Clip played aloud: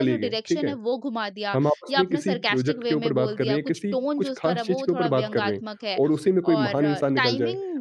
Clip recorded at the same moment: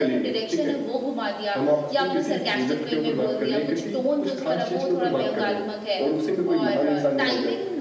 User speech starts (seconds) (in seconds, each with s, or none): none